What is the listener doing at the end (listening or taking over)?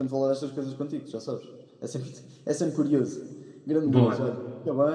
listening